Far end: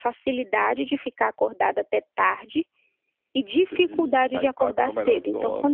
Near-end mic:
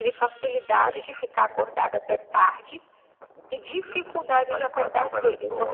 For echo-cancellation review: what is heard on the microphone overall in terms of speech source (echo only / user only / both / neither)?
echo only